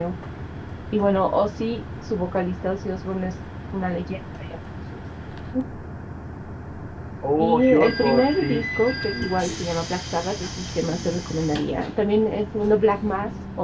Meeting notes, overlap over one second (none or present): present